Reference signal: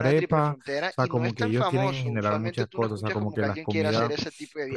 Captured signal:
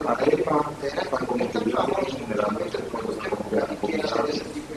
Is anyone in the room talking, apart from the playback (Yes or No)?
No